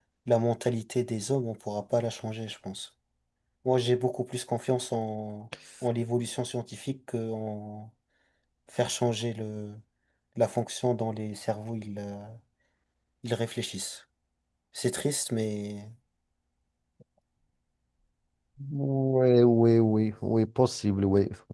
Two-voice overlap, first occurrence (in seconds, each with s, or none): none